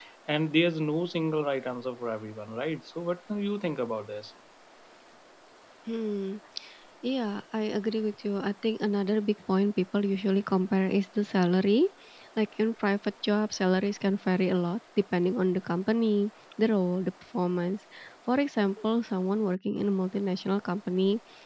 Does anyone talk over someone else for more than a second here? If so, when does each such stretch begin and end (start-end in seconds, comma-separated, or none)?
none